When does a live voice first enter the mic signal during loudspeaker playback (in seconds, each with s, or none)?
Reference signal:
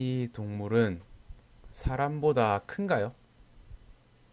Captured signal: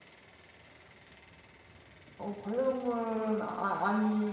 2.2 s